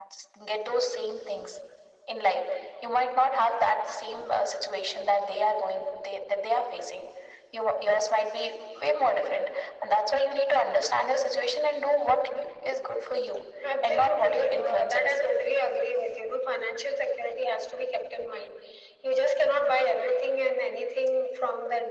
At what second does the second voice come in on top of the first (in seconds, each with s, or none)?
13.6 s